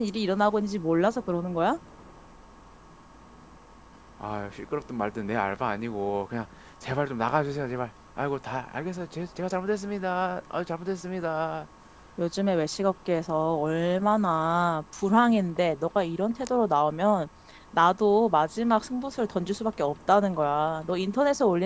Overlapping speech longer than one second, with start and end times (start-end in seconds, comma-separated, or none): none